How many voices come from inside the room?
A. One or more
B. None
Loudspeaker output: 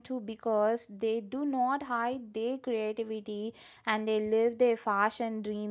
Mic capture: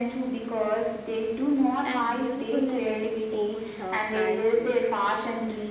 A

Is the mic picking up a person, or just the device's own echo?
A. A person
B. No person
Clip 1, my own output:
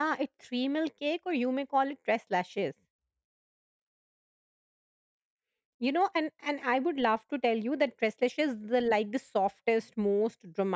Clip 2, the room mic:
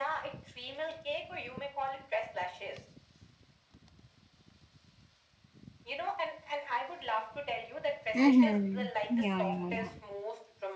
A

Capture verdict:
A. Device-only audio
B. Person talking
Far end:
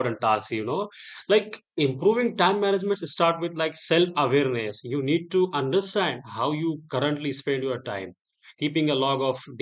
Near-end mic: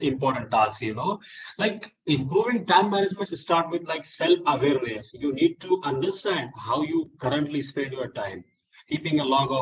A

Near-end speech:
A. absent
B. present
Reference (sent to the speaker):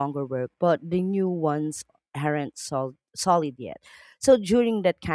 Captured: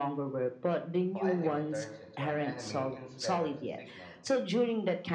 B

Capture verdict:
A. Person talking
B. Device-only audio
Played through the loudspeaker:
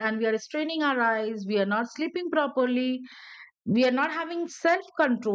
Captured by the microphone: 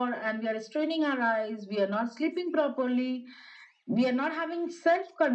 B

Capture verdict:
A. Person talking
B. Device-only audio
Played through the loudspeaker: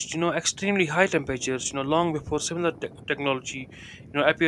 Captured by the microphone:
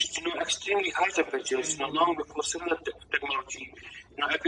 A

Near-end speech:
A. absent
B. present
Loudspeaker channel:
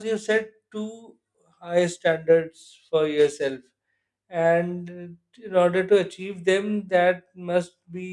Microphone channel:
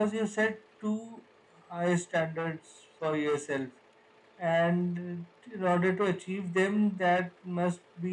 A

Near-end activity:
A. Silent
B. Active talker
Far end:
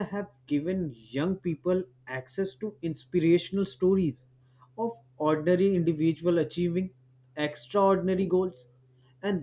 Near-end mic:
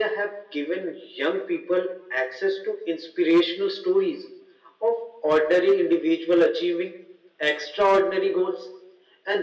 A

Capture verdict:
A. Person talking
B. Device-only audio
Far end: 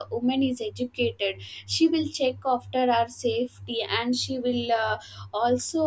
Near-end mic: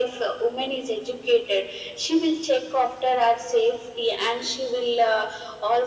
B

